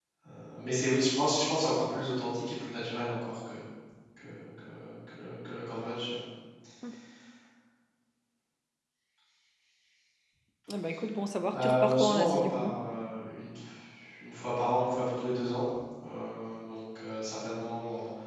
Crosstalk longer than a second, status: present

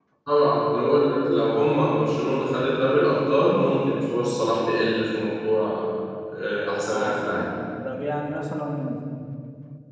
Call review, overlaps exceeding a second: none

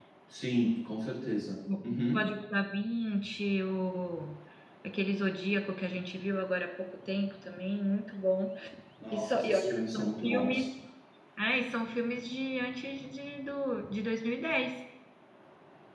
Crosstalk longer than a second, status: present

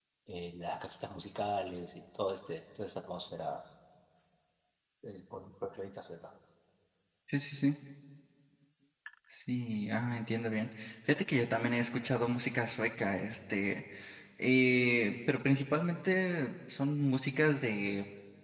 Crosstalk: none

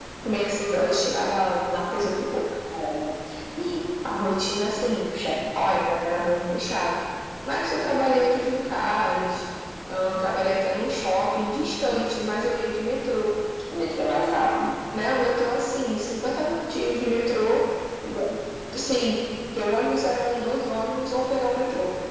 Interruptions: none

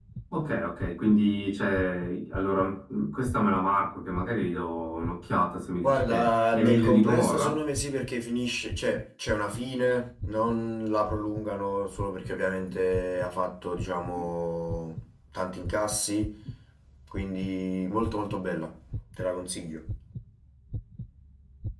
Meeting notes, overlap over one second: present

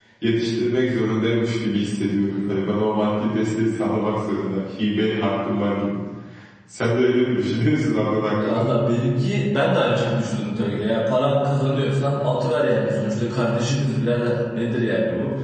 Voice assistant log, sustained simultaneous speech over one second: none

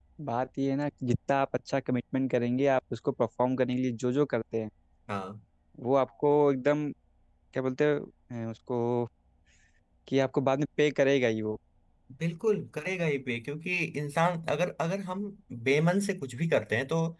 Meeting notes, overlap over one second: none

